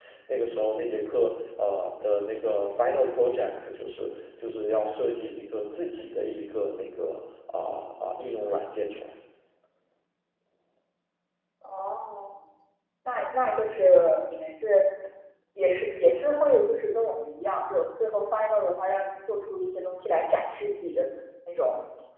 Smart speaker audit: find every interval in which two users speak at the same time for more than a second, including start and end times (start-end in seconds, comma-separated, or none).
none